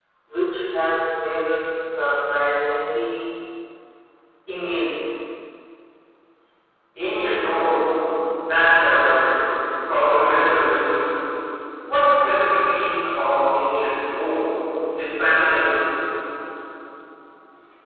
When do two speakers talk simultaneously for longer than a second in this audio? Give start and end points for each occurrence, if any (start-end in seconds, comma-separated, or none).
none